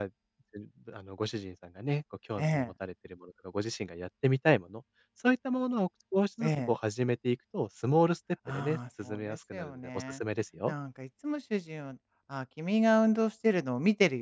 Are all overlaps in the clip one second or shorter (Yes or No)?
No